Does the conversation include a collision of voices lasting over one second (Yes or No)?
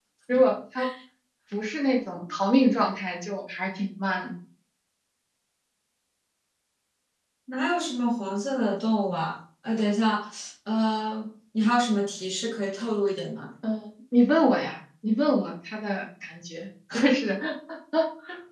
No